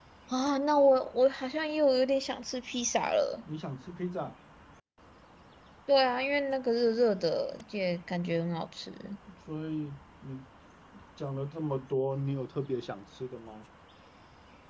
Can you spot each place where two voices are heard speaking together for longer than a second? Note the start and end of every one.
none

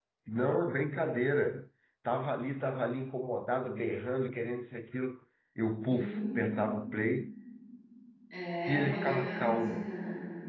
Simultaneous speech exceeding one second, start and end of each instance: 8.7-9.9

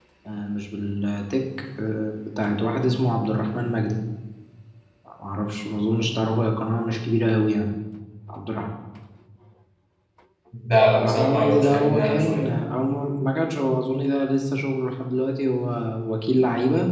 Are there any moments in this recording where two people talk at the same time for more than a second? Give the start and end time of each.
11.0-12.5

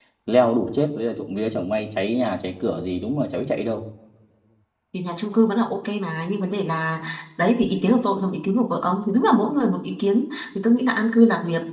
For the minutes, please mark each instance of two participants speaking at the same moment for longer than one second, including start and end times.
none

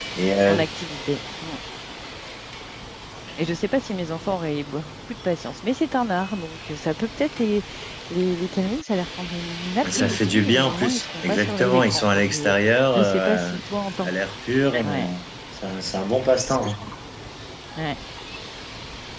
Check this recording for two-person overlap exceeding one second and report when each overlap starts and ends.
9.9-13.5

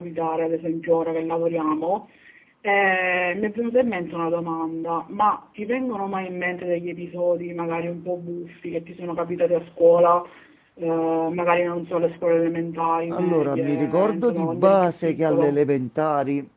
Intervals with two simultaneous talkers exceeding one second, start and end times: 13.1-15.6

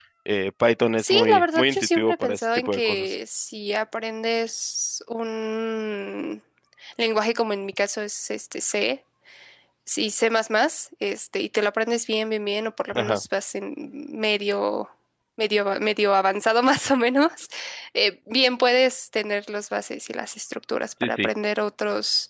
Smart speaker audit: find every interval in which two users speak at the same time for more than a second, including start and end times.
1.0-3.1

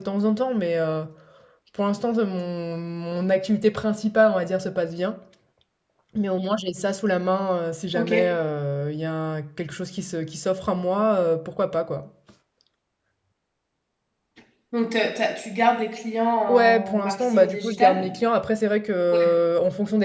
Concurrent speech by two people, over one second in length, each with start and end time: 16.5-18.1

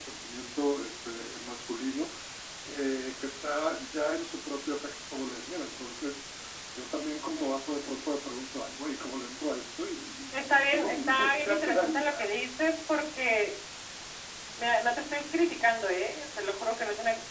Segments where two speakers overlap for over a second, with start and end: 10.3-12.3

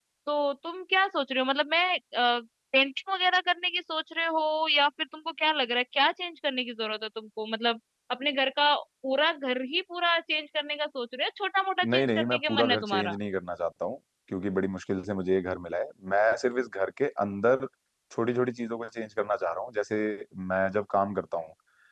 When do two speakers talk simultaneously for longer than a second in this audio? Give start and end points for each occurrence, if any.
11.9-13.2

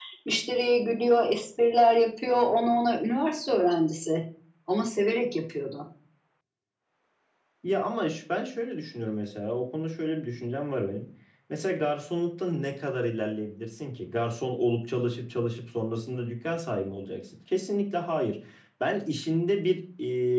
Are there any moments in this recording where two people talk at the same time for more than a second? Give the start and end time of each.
none

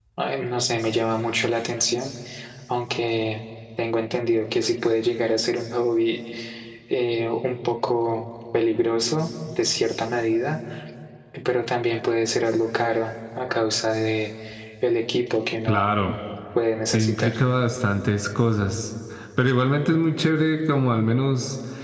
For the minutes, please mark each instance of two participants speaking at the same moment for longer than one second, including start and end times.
none

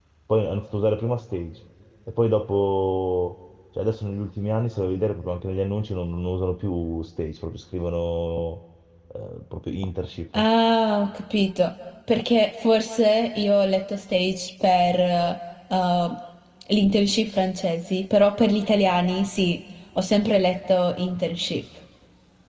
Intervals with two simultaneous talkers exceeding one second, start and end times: none

